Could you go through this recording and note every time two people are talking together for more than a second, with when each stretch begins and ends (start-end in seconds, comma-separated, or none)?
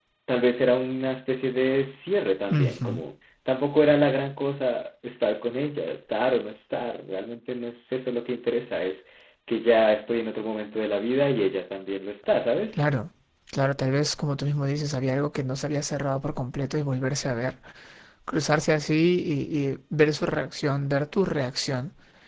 none